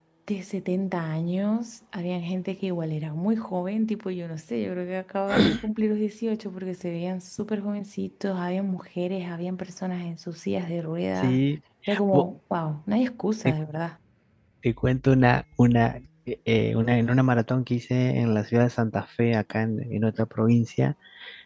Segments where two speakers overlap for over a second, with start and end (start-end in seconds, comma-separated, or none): none